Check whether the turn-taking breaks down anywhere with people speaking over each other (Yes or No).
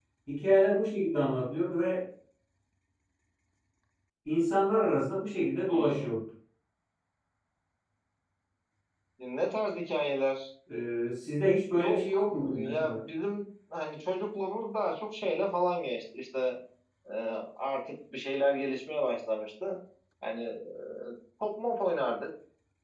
Yes